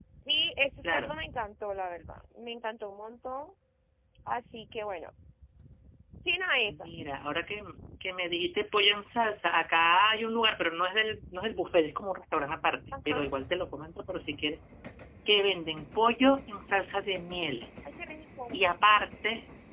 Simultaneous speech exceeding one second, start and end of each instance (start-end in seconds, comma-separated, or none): none